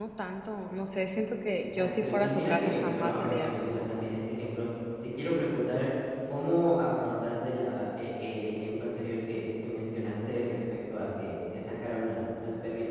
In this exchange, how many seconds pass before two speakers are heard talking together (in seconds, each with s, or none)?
1.6 s